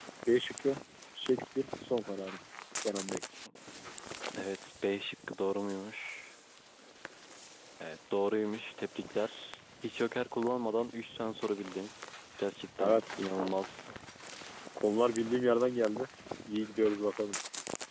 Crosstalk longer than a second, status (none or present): none